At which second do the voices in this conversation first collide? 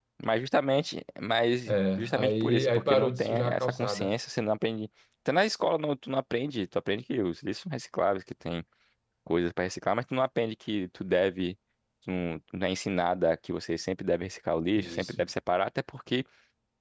1.7 s

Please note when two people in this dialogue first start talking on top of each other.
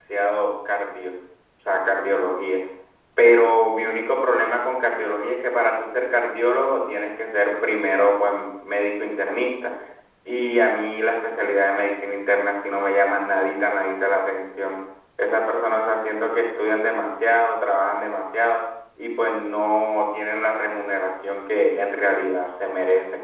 none

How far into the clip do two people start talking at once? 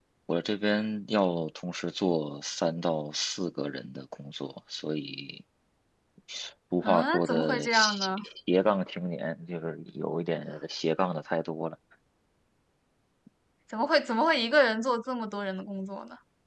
6.8 s

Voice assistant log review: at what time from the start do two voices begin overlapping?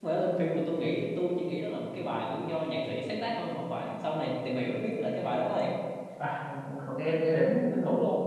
none

